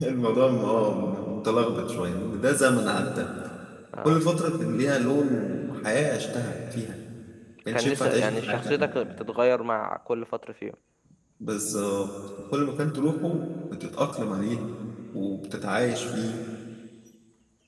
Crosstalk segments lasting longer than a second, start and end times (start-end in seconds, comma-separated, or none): 7.7-8.9